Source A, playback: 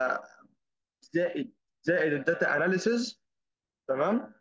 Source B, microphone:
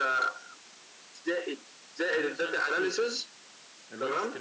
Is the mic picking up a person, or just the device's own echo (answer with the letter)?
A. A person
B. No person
A